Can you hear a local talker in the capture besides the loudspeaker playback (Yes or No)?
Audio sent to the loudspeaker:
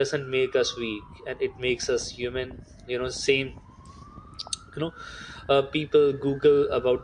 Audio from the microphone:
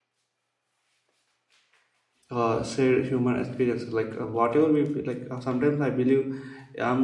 Yes